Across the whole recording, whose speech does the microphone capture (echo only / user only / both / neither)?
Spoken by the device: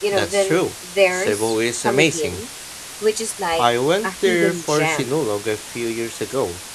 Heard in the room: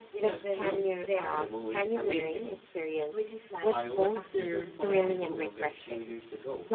both